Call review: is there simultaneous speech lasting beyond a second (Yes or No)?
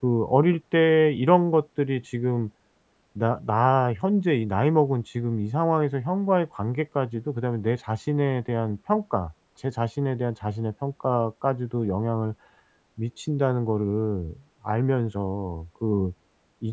No